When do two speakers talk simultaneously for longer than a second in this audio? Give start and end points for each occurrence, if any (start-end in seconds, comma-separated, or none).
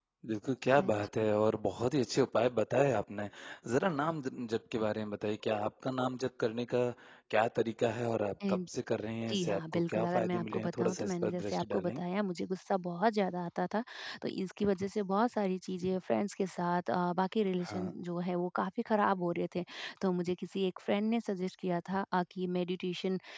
9.3-12.0